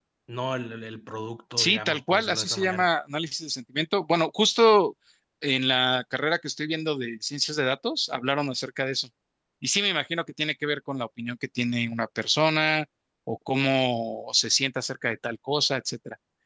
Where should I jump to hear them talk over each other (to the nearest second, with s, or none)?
2 s